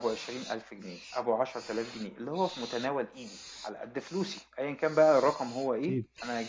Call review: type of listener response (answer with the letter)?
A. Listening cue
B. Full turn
A